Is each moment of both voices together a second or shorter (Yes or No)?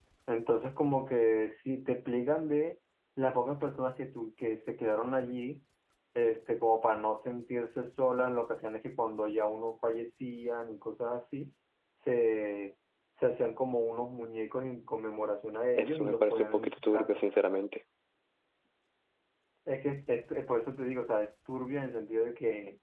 No